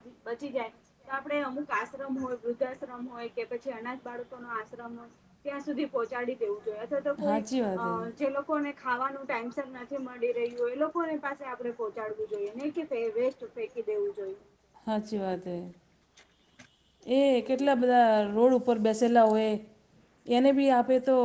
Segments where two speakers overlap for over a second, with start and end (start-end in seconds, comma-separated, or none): none